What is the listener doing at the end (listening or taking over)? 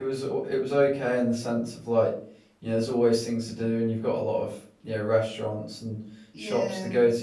listening